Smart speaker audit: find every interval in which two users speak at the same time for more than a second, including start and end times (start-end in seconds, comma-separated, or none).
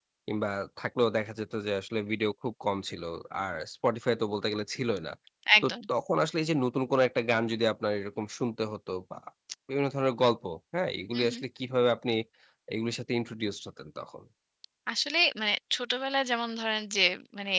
none